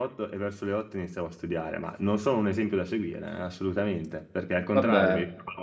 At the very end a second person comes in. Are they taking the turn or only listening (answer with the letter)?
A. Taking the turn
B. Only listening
B